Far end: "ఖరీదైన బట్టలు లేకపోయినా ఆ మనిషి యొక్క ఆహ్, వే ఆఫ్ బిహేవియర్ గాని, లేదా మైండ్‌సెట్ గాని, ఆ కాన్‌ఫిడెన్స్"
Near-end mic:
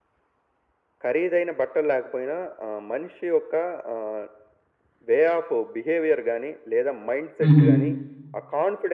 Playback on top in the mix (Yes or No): No